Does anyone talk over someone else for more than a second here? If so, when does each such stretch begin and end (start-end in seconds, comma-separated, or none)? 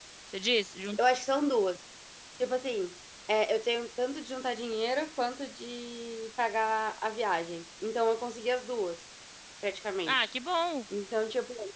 none